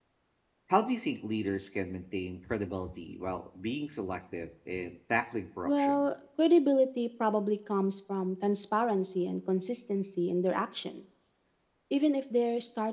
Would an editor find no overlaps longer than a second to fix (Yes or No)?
Yes